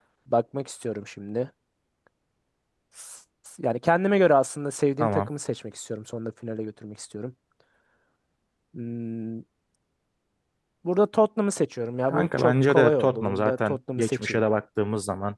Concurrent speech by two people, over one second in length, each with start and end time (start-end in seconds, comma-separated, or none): 12.1-14.4